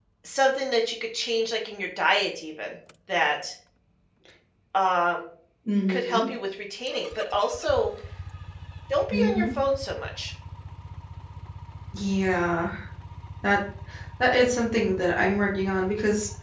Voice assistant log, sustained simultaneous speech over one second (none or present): none